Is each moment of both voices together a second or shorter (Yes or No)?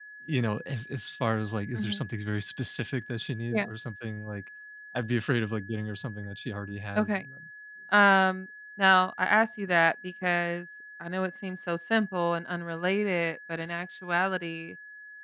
Yes